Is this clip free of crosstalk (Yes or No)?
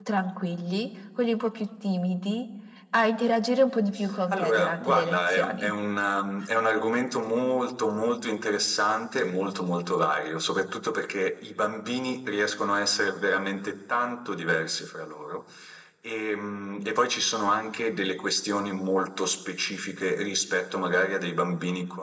No